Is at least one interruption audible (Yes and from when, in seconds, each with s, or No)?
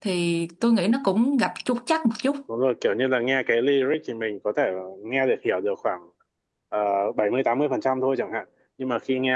No